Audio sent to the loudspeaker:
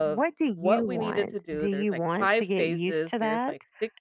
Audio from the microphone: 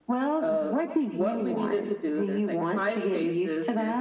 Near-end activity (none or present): none